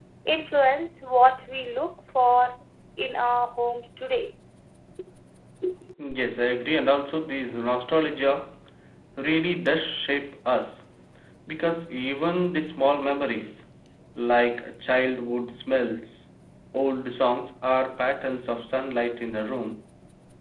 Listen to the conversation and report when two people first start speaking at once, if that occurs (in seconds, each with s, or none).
none